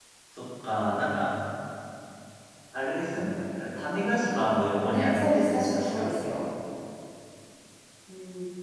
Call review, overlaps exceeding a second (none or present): present